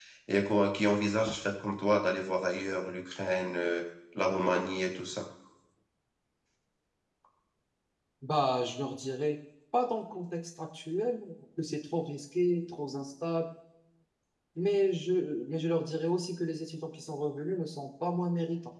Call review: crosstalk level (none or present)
none